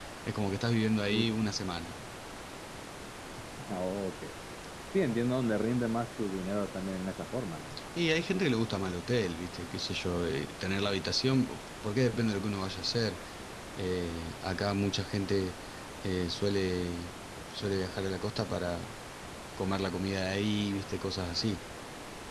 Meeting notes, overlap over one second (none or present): none